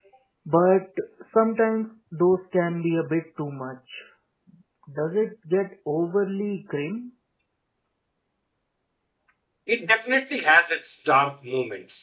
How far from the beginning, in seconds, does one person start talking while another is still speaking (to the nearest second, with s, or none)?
none